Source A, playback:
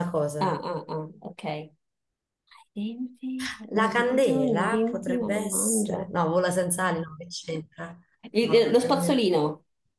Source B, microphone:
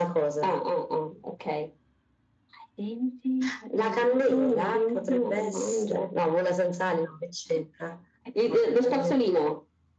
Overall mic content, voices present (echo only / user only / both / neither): echo only